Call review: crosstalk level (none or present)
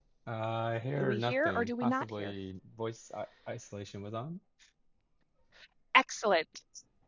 present